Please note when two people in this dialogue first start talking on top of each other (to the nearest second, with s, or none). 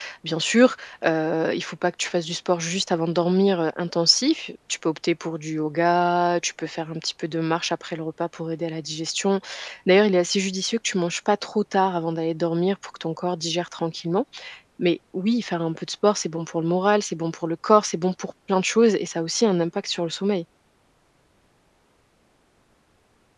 none